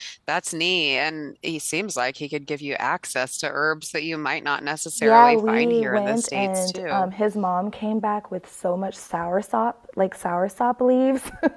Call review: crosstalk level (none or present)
present